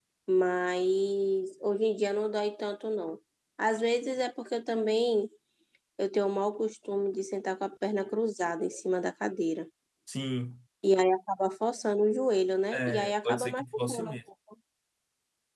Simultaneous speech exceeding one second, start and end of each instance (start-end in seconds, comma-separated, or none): 12.7-14.2